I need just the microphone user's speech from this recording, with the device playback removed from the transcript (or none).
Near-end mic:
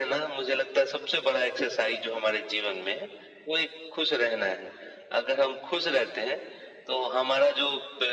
none